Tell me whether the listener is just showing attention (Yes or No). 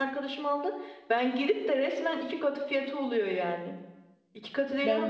Yes